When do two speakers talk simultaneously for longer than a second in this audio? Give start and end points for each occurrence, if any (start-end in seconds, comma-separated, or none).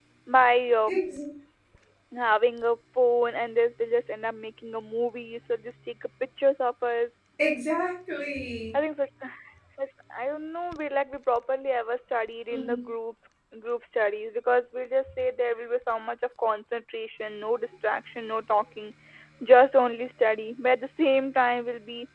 none